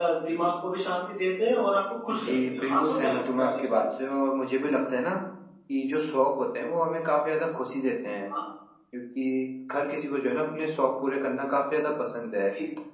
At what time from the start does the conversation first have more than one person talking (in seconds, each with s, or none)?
2.1 s